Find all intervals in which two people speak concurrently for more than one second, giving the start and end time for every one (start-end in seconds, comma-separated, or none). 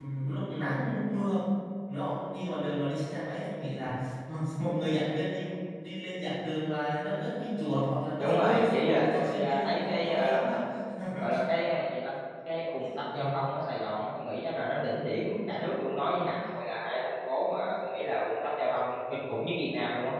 8.2-10.4